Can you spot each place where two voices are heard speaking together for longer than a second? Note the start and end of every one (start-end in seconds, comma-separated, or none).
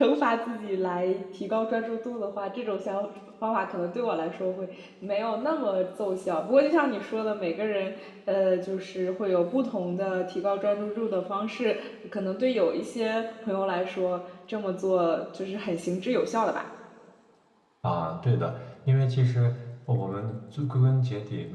none